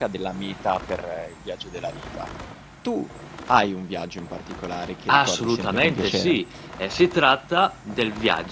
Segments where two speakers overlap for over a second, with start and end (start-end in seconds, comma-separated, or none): 5.1-6.4